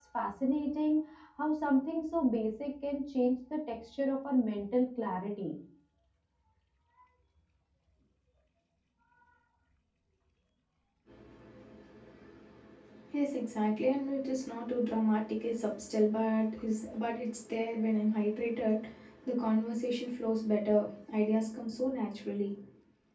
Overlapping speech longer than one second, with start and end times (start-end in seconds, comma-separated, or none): none